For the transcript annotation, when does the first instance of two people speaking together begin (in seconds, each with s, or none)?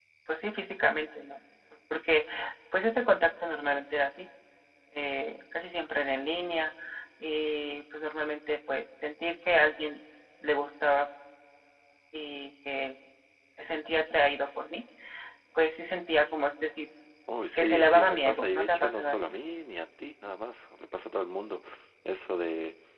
17.5 s